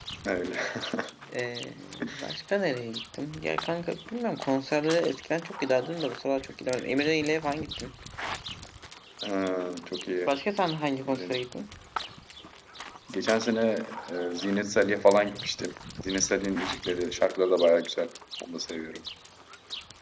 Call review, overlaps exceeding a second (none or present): none